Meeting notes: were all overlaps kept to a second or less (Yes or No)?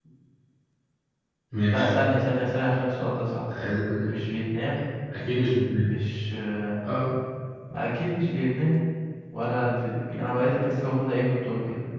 Yes